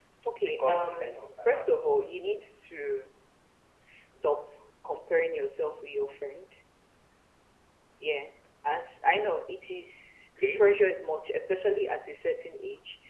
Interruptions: present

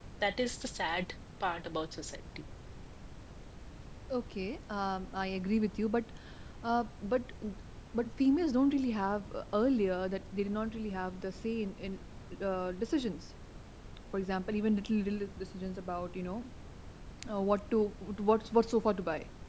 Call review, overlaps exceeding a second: none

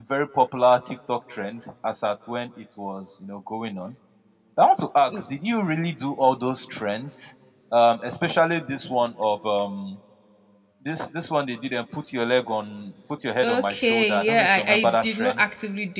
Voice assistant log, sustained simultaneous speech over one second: present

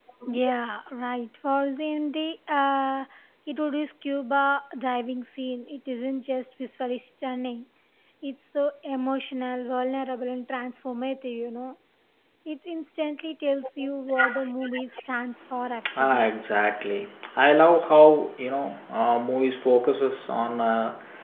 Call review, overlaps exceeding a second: none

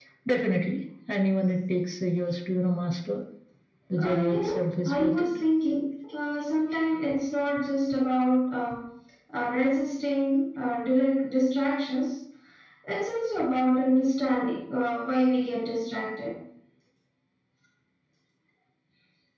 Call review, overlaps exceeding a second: present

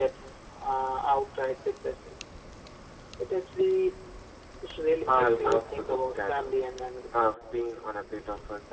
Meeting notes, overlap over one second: present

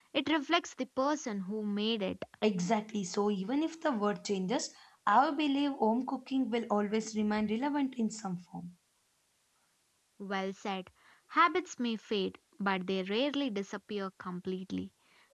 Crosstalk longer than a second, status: none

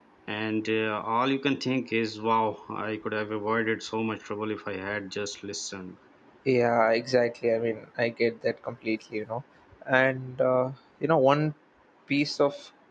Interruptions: none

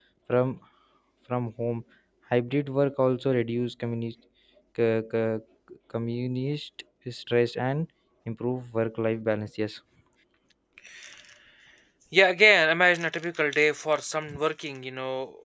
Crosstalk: none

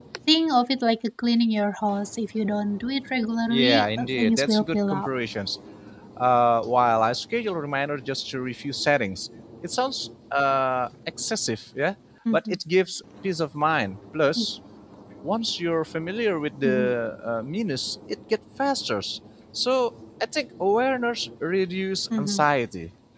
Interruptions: present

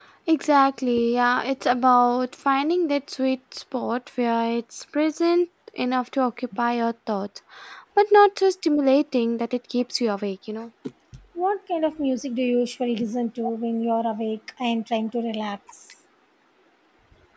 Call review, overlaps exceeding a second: none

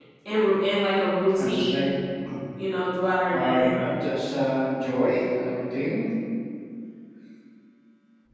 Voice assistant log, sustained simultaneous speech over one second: none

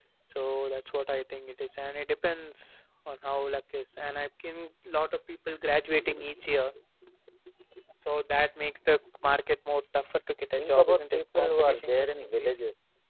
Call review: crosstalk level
present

